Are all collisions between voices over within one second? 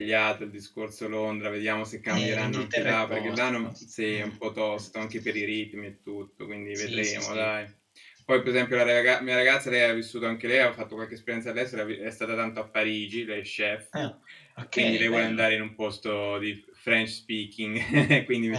No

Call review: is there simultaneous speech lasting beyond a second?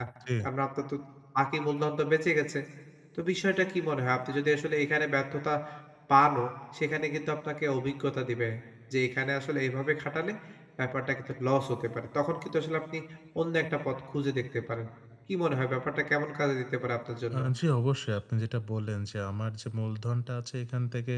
No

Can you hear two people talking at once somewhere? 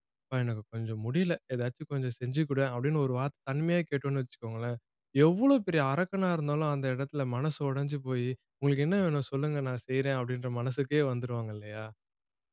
No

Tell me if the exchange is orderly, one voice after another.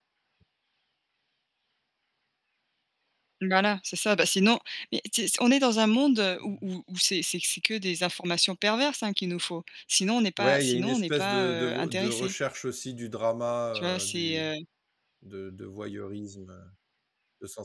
No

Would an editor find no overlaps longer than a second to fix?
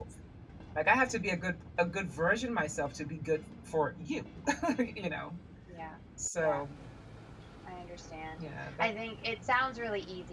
Yes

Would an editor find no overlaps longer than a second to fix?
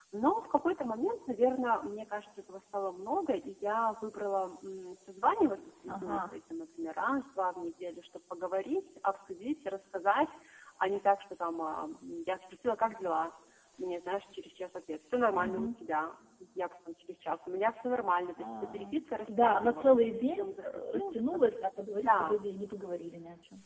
No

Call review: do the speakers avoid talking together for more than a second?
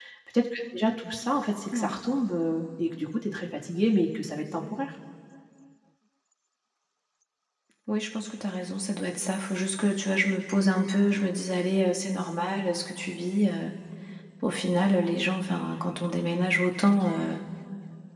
Yes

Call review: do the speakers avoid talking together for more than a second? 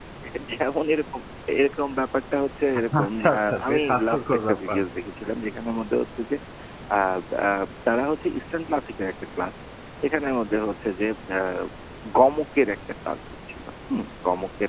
No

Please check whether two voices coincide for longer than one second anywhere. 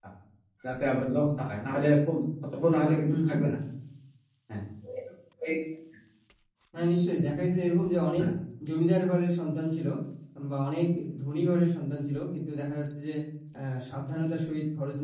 No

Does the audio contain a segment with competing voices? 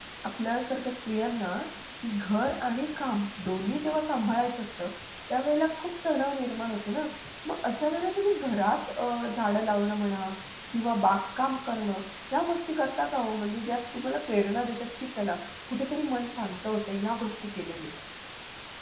No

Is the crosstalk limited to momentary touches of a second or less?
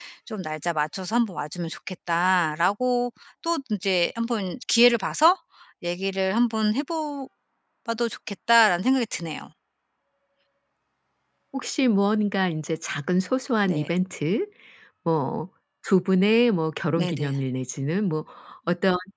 Yes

